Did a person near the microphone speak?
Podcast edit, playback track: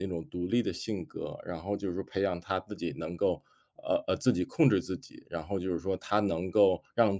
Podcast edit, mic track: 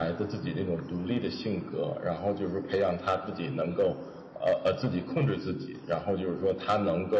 No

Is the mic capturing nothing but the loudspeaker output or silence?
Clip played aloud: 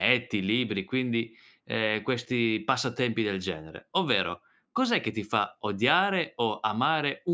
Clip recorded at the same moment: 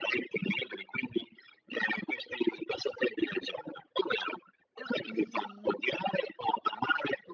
No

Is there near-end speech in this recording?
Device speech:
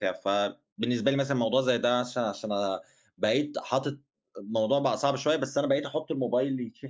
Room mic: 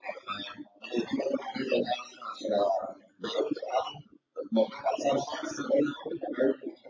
No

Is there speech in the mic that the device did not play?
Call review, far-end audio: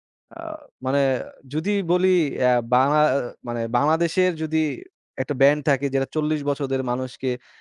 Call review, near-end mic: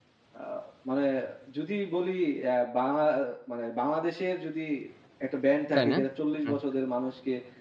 Yes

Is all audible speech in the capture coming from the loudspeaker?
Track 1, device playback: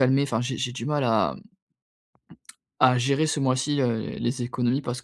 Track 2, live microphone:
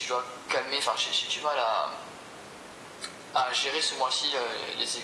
Yes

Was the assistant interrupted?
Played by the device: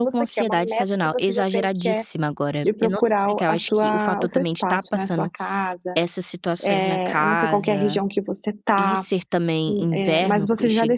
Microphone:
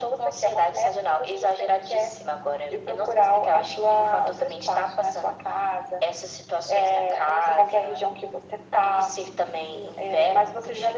No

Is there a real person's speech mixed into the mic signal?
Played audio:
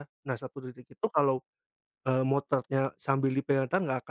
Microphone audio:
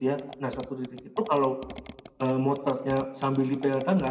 No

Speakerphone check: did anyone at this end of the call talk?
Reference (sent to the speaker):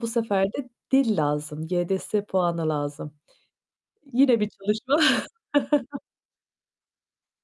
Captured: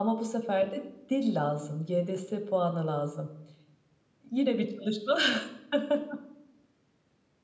No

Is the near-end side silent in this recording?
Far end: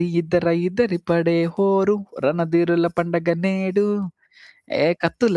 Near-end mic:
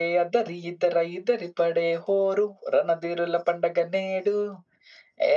Yes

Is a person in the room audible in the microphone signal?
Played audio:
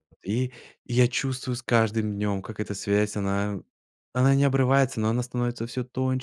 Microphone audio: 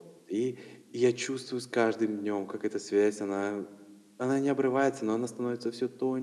No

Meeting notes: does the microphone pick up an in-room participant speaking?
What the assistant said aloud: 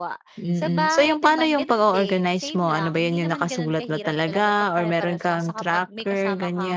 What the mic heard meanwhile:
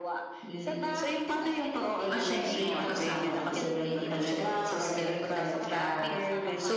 Yes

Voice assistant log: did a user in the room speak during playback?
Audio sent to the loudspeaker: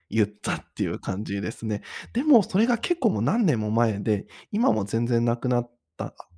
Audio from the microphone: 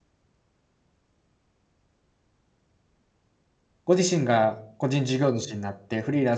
Yes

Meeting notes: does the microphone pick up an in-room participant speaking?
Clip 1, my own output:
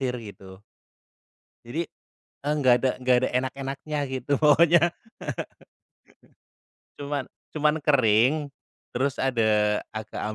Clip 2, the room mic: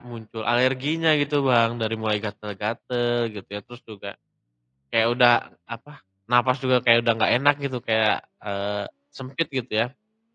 Yes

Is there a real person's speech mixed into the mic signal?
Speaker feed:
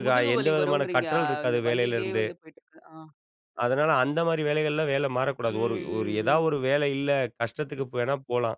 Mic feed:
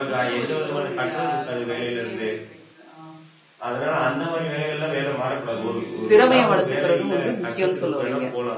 Yes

